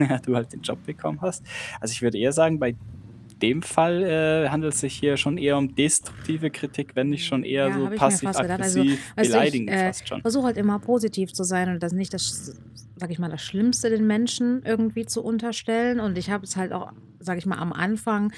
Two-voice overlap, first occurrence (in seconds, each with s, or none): 7.0 s